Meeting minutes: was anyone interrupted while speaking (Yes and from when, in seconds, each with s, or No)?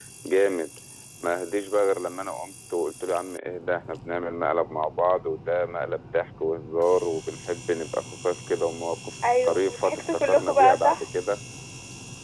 Yes, from 9.2 s